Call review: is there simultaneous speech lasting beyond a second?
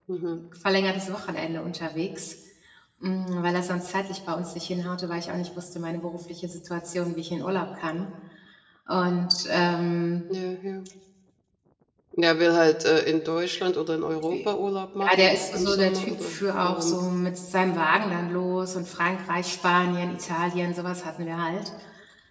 Yes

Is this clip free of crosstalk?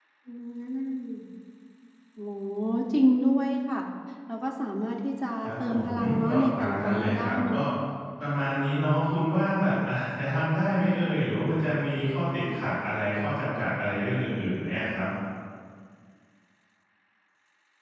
No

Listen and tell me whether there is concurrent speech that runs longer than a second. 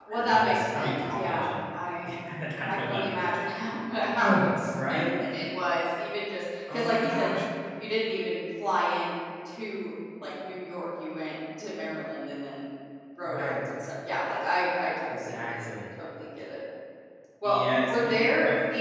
Yes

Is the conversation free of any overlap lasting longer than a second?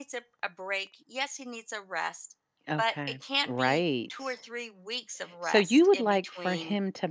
No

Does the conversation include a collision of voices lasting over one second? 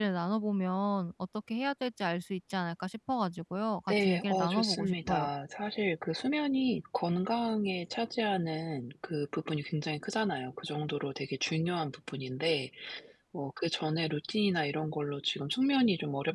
Yes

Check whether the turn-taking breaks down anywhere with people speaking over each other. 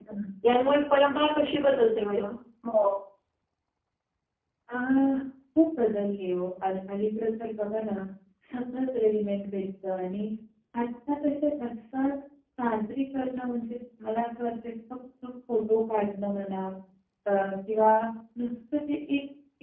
No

